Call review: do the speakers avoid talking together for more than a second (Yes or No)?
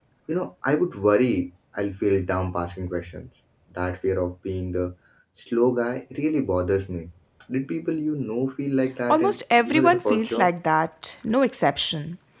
No